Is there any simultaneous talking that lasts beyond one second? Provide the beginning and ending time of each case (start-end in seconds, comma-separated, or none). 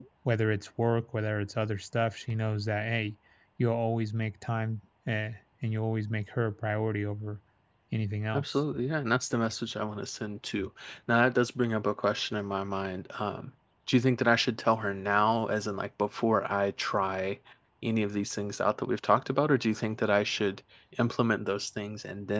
none